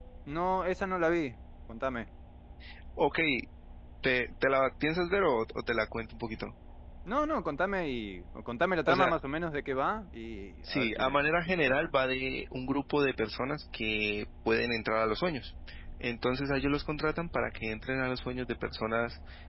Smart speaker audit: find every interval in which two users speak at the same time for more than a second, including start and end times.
10.6-11.9

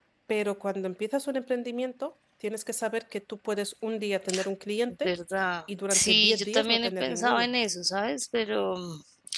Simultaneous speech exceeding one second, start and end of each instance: 5.9-7.5

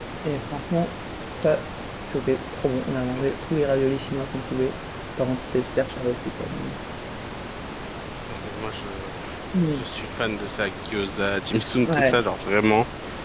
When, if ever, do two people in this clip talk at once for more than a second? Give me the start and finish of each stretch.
none

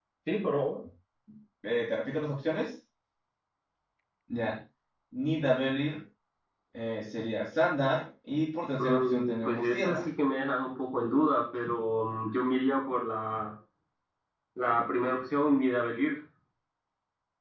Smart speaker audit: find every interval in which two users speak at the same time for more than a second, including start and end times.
8.8-10.0

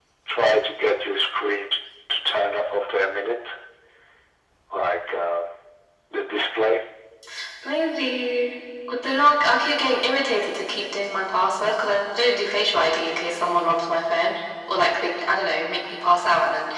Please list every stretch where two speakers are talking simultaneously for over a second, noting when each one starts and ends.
none

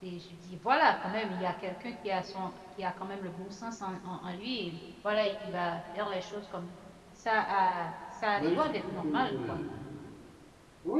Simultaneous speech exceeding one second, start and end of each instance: 8.4-9.6

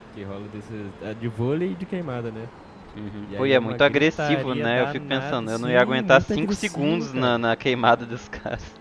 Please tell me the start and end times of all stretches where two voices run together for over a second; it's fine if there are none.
3.3-7.4

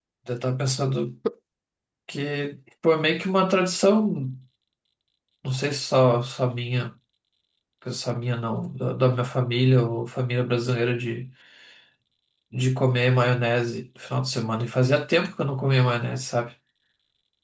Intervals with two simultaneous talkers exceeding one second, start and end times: none

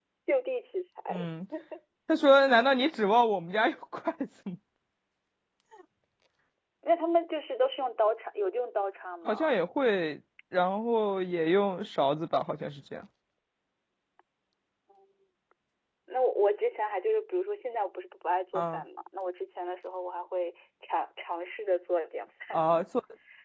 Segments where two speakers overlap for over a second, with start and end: none

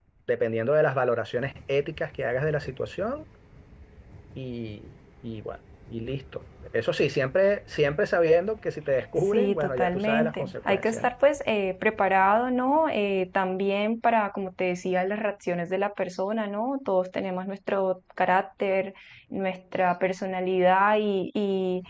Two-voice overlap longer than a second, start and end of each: 9.3-11.1

